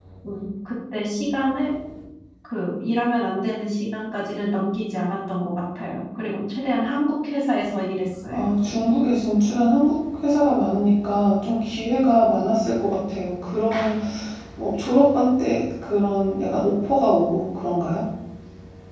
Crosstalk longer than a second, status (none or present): none